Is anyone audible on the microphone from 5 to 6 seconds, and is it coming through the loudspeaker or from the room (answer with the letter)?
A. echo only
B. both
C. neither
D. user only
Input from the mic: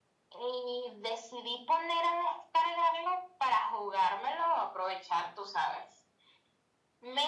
A